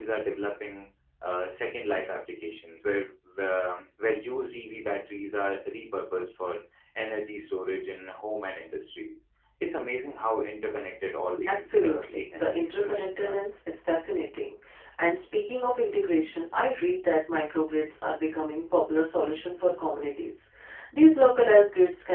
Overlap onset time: 11.3 s

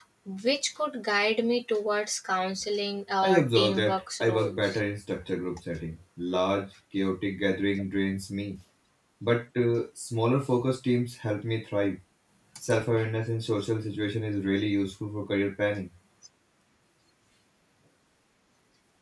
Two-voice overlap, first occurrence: 3.2 s

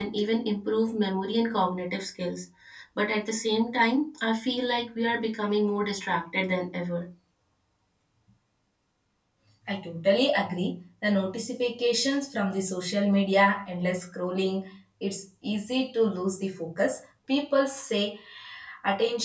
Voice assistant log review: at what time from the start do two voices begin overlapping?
none

